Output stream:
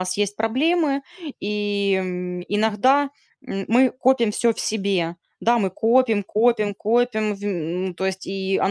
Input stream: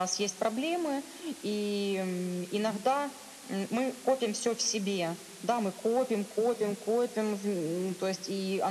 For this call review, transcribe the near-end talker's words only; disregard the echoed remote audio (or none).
none